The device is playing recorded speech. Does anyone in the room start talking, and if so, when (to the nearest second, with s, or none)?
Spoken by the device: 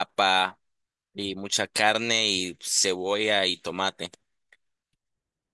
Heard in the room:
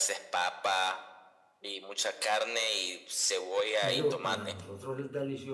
4 s